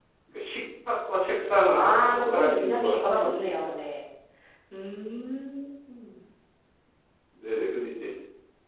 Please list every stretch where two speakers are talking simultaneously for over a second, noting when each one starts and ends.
1.7-3.7

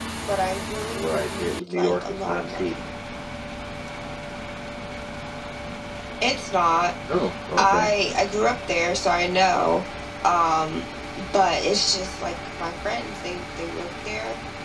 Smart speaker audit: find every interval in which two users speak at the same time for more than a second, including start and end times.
0.9-2.7

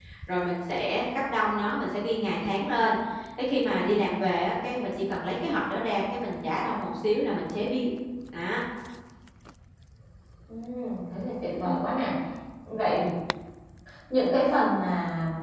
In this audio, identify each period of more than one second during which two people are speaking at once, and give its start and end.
none

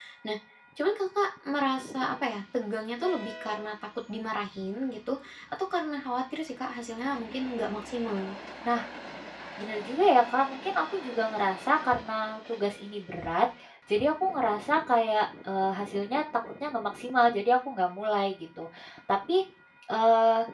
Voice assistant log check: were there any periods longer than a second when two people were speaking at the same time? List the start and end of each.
none

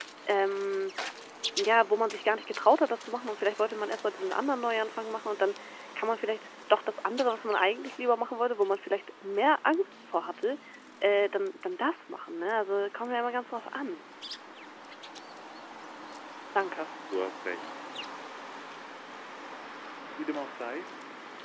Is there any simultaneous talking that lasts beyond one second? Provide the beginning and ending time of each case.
none

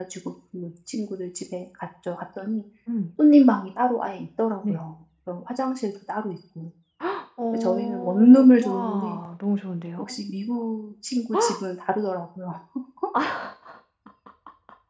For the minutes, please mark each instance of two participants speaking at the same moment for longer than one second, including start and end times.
7.5-9.2

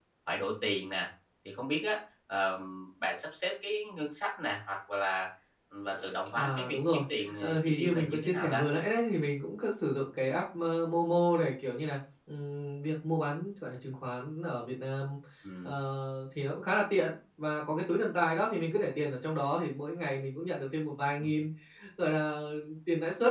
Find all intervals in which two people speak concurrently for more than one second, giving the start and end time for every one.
6.3-8.6

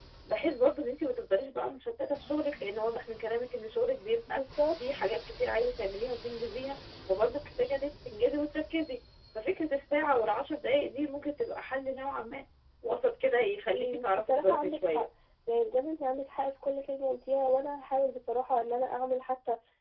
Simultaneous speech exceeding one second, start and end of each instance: 13.7-15.0

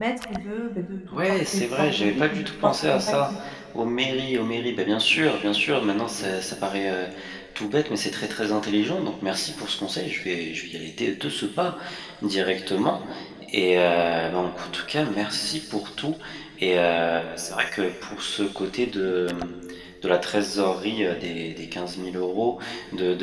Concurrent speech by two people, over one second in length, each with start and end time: 1.1-3.1

